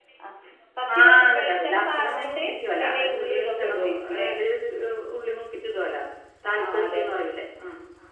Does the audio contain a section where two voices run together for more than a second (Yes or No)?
Yes